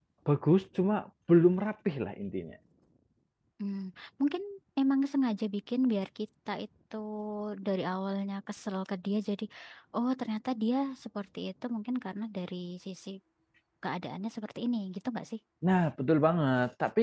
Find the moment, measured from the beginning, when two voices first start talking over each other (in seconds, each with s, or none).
none